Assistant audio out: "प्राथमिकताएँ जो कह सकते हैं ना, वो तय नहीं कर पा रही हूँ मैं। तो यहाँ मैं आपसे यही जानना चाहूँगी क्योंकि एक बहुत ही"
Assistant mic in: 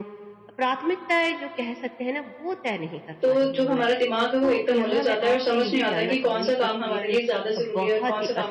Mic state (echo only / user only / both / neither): both